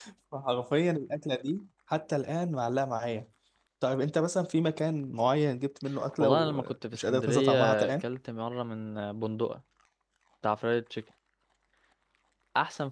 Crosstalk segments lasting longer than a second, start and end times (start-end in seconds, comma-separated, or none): 6.2-8.0